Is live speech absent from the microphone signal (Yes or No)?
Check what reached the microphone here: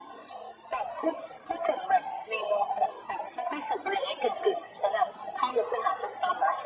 Yes